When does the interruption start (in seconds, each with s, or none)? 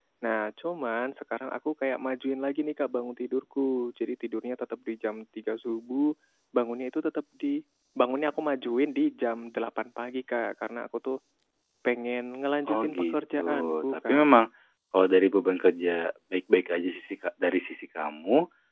12.7 s